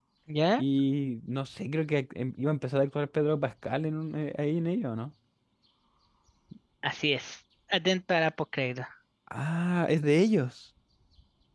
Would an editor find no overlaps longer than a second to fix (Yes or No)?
Yes